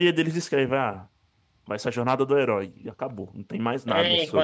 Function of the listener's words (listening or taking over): taking over